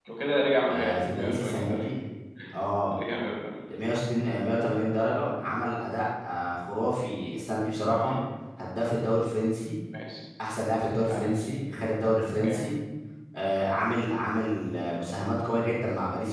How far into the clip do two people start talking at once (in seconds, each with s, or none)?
0.7 s